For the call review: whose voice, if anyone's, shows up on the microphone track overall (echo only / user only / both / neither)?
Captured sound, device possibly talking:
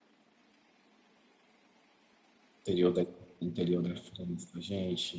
user only